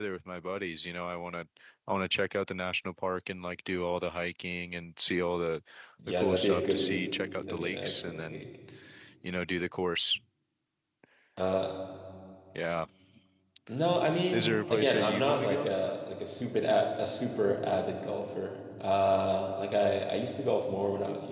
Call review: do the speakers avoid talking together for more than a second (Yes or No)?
No